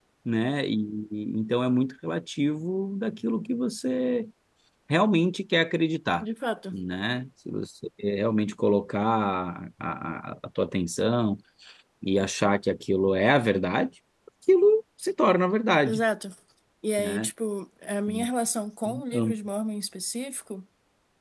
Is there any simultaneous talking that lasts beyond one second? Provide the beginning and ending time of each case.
none

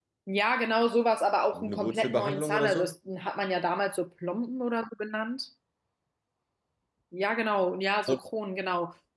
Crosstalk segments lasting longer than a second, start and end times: 1.5-2.9

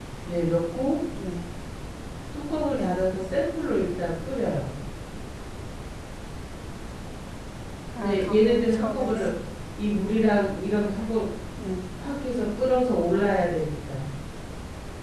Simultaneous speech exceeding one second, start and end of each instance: 8.0-9.3

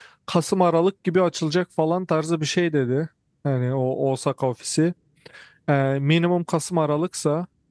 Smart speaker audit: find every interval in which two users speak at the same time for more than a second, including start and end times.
none

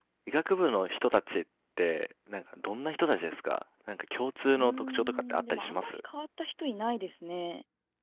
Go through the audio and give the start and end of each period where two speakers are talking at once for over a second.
4.6-5.9

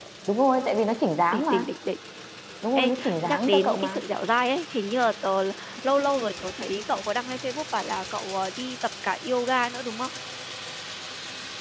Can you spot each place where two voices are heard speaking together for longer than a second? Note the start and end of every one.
2.8-4.0

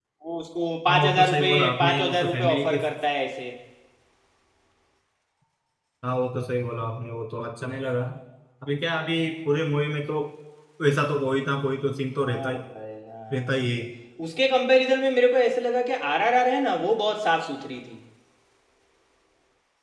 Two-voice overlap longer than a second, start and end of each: 0.9-2.8

